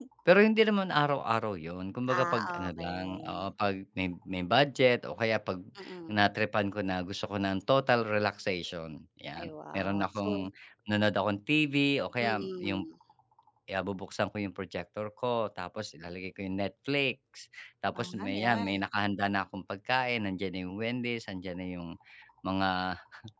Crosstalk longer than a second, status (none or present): present